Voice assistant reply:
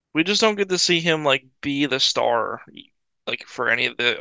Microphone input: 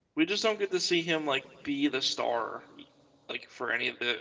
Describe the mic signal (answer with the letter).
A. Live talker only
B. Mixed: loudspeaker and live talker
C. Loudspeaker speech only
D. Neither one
C